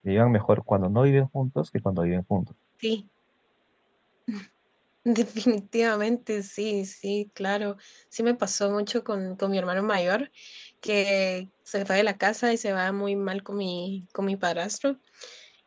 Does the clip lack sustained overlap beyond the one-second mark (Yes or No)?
Yes